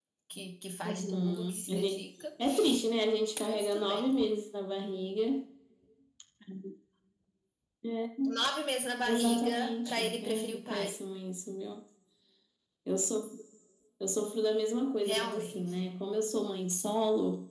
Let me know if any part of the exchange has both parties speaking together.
Yes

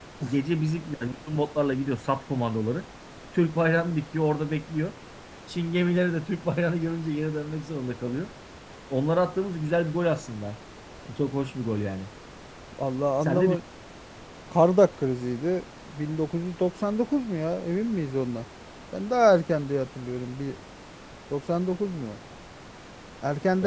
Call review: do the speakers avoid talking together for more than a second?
Yes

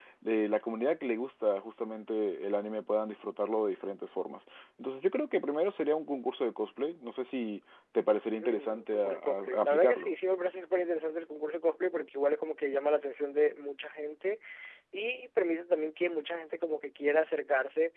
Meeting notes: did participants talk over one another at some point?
Yes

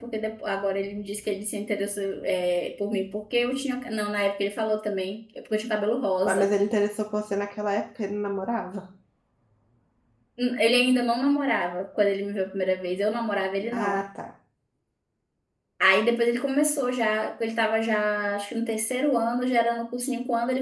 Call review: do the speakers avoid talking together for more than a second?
Yes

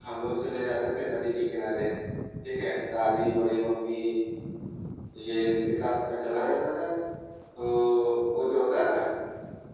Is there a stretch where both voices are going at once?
No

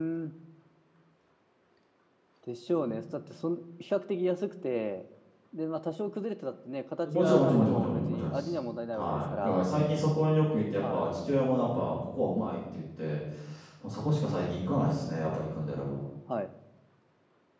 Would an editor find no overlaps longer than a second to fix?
No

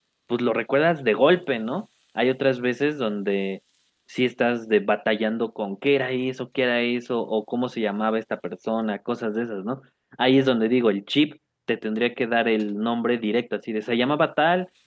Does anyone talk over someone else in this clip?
No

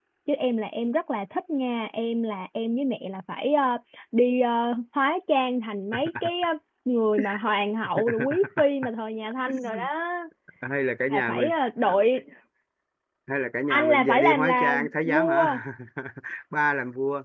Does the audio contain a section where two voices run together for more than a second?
Yes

